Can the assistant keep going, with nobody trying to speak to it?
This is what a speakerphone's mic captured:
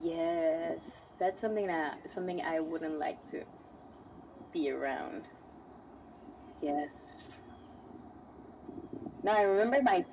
Yes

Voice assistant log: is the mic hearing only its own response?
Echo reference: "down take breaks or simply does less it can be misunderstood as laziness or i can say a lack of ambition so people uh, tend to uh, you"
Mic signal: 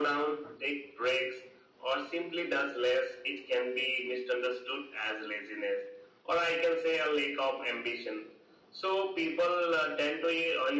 Yes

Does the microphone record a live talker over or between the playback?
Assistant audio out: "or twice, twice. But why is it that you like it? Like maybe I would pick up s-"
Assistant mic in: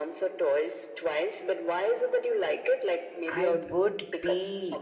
Yes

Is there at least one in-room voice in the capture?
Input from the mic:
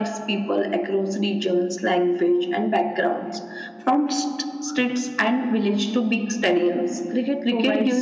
Yes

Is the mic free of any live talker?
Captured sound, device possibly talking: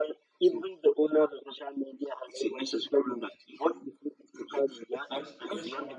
No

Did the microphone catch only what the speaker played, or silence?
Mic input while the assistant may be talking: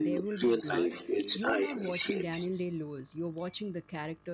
No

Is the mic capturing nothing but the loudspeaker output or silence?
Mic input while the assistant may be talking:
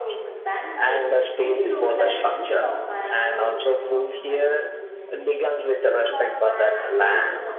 No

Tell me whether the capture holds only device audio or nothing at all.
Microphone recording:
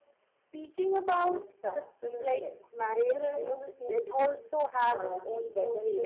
Yes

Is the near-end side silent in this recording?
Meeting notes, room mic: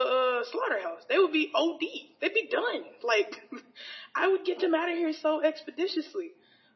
Yes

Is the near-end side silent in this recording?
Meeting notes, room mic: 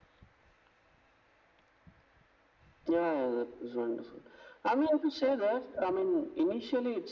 Yes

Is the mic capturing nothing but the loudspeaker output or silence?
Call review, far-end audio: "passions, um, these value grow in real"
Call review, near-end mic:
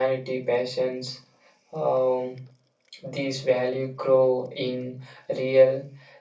Yes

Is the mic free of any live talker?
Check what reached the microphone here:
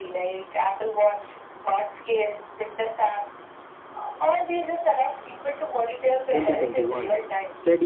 No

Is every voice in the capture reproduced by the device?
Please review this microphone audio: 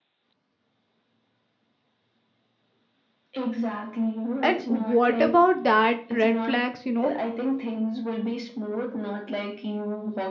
No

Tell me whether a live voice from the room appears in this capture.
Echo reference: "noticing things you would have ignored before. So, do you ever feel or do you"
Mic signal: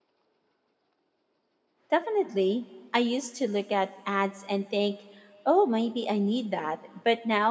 Yes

